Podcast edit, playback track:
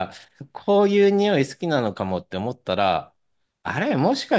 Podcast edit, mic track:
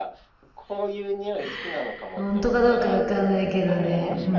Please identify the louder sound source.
user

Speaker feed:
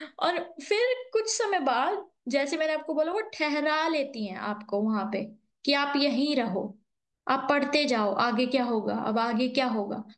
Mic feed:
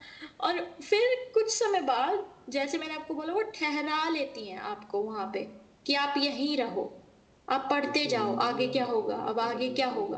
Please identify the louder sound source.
echo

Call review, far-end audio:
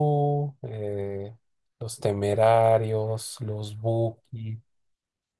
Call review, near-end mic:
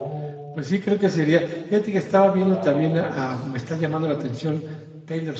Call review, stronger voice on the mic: user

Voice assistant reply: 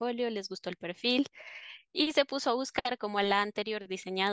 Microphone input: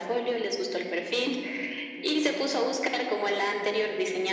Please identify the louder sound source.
echo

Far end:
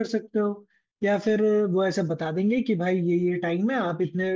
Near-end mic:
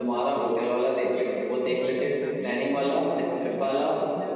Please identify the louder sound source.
user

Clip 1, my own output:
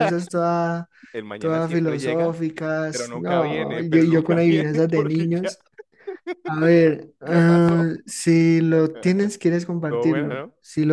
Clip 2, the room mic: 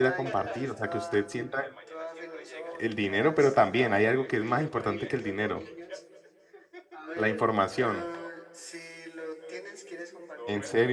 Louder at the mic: user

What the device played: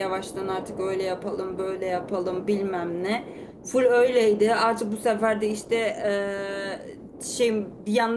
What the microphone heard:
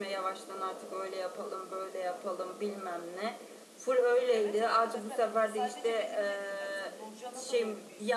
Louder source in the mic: echo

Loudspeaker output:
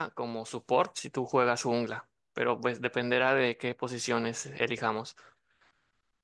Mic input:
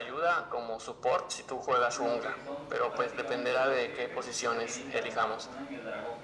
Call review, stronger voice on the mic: echo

